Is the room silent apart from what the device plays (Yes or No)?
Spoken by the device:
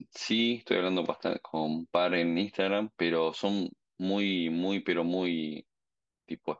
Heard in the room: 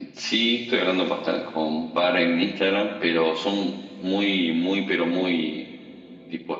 Yes